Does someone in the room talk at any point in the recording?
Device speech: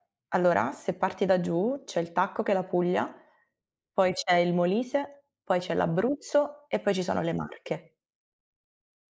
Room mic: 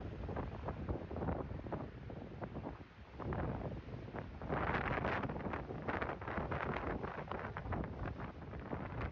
No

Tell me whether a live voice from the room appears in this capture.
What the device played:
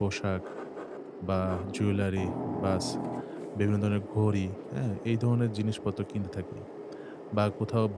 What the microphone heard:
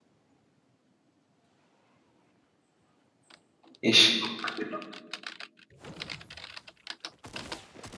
Yes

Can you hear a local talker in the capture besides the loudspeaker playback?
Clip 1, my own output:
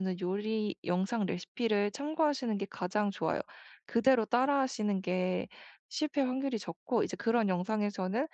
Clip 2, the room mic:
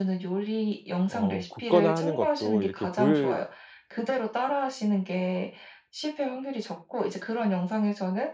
Yes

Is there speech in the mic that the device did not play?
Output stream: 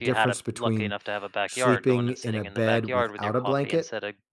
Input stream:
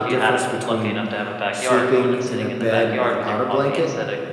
No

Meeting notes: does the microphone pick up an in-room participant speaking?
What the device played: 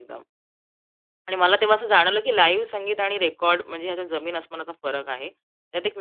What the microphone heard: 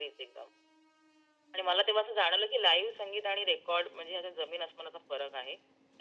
No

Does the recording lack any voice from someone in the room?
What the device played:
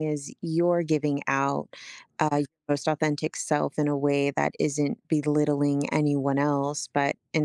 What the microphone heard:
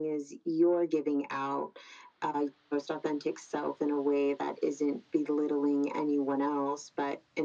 Yes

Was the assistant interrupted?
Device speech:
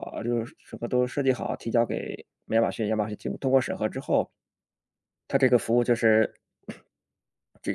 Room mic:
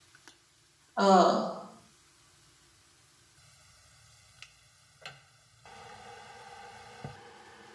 Yes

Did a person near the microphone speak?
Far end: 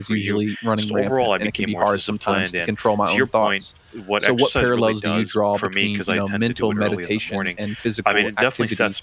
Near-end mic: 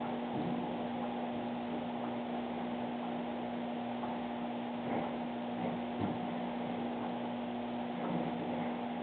No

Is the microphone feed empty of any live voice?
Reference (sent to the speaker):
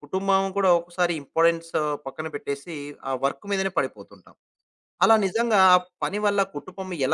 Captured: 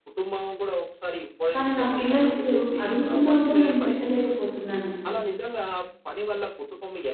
No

